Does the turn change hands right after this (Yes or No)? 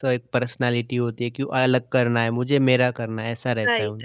Yes